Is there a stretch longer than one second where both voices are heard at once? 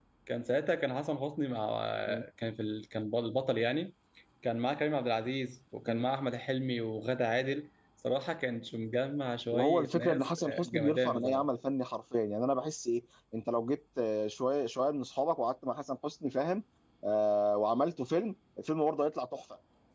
Yes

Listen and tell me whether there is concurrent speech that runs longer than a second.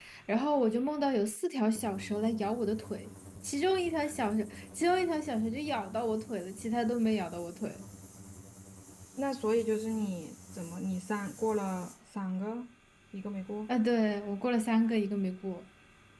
No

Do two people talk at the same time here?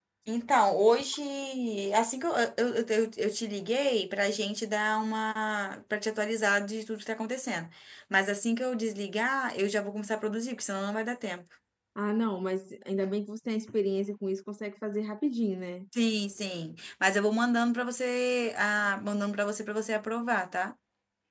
No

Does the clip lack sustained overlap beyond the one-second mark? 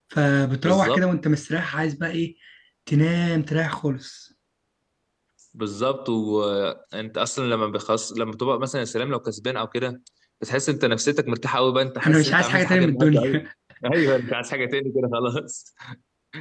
No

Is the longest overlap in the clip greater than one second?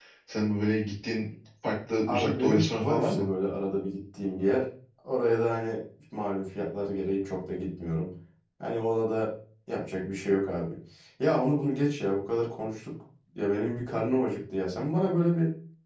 Yes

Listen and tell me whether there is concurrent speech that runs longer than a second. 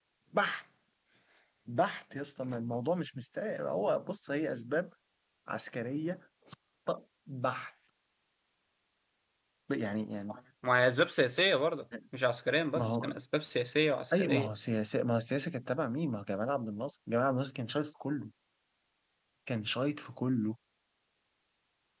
No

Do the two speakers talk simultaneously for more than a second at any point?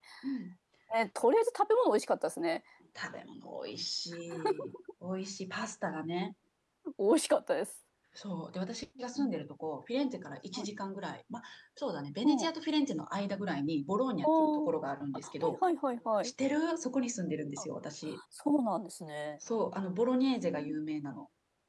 No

